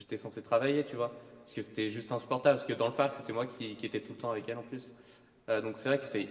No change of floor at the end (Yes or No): Yes